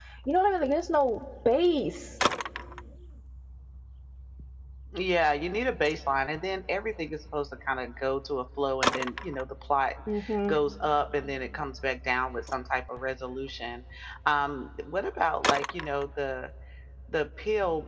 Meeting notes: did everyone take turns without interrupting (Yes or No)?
Yes